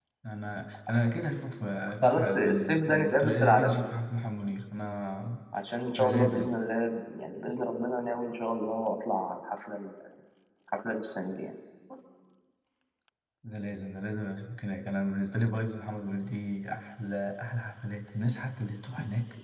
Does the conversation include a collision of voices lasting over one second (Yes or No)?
Yes